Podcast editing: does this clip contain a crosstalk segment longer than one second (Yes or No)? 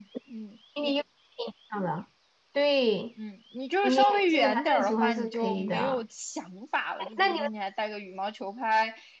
Yes